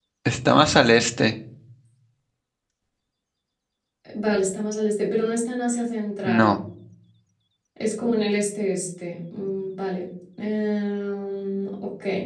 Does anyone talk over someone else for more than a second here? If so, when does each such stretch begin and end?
none

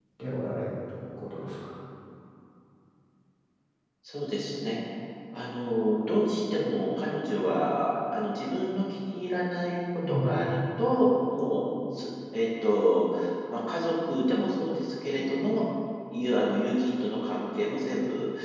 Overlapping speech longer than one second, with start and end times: none

